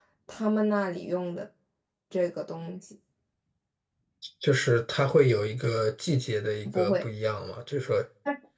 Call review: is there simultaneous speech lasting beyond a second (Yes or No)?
No